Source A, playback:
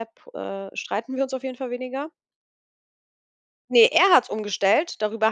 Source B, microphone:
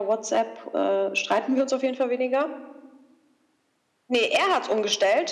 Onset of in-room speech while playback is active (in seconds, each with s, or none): none